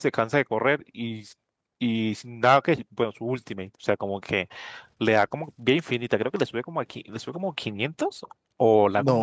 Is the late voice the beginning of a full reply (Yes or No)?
Yes